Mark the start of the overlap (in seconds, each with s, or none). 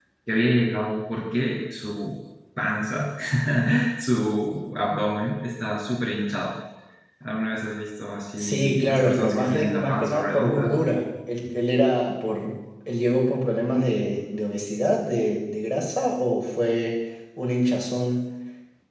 8.4 s